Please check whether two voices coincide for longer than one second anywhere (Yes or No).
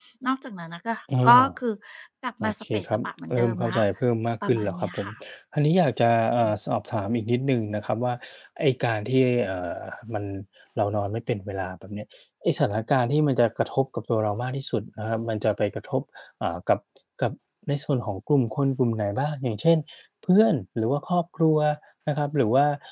Yes